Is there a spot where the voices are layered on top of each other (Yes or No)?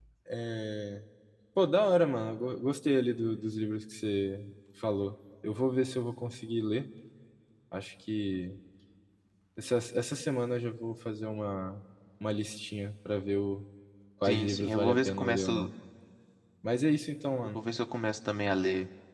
Yes